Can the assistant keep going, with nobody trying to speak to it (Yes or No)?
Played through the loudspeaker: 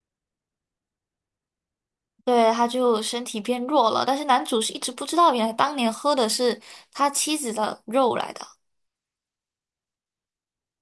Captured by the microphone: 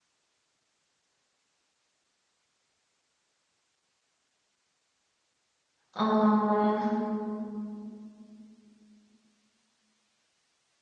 No